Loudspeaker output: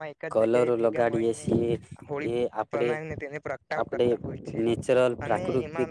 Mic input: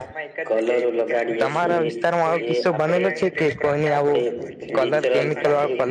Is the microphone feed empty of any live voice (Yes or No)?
No